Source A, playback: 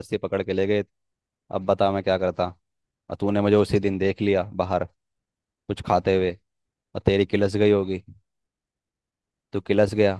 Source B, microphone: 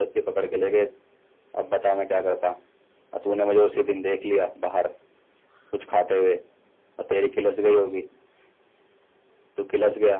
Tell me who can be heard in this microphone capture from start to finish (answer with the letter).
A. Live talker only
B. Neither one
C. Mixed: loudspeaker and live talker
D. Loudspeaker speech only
D